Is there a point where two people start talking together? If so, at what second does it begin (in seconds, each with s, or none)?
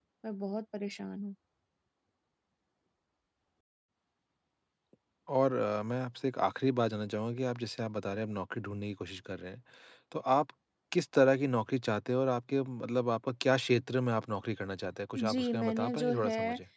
15.2 s